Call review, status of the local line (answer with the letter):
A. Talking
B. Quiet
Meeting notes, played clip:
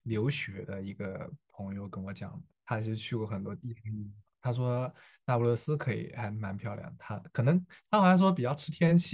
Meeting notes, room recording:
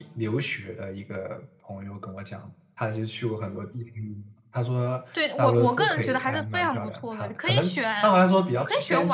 A